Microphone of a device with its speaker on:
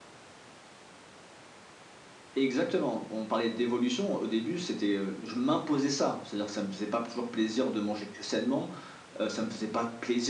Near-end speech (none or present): none